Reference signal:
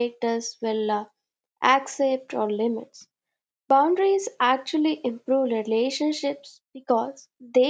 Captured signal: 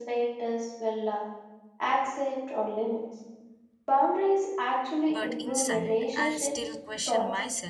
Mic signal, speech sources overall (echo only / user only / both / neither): both